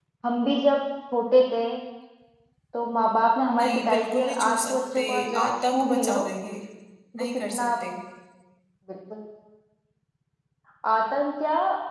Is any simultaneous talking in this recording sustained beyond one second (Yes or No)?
Yes